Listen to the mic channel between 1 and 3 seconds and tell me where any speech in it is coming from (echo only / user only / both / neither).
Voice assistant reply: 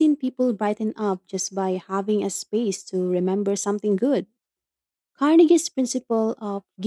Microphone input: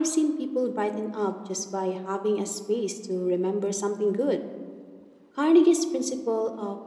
echo only